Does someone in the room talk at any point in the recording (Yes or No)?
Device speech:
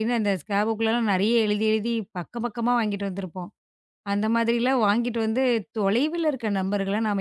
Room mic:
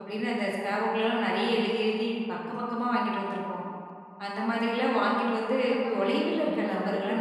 Yes